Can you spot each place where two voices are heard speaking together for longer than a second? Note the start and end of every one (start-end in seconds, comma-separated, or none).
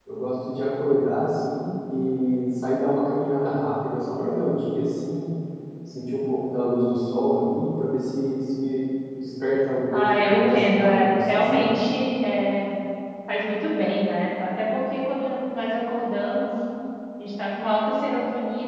9.9-11.7